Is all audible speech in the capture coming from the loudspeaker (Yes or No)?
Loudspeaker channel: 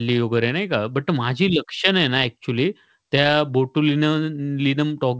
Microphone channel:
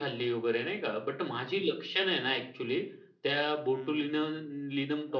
No